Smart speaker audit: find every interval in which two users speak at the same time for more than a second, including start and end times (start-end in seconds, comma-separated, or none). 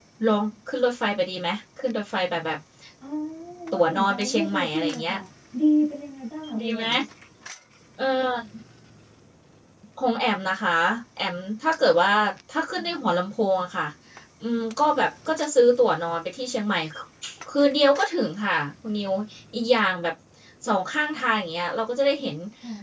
3.7-5.2